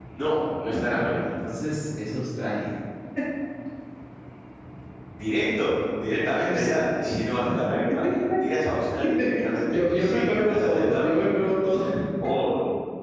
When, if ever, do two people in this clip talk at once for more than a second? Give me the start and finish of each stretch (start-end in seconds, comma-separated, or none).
9.7-11.2